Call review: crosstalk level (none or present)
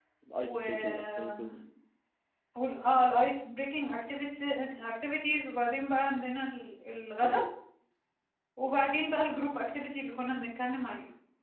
present